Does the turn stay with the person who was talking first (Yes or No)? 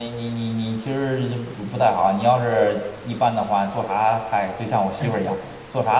Yes